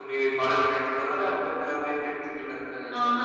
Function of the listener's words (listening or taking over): taking over